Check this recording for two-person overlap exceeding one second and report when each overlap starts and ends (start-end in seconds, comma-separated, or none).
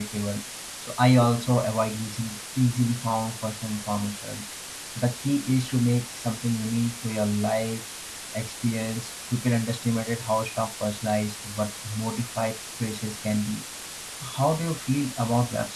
none